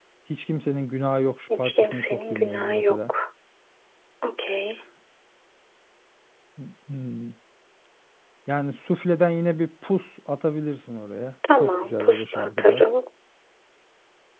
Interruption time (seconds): 2 s

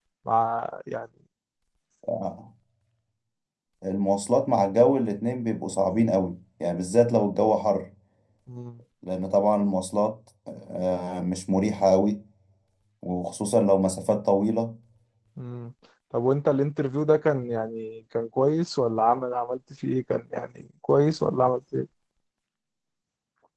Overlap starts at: none

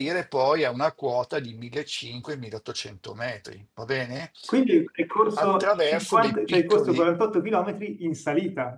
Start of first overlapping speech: 5 s

